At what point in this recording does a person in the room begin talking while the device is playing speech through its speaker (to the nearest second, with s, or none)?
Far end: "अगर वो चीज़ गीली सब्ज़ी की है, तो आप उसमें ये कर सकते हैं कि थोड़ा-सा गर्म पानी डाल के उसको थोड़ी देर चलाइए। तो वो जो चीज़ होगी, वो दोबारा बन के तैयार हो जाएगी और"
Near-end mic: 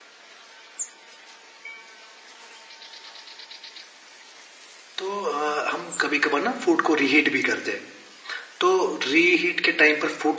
5 s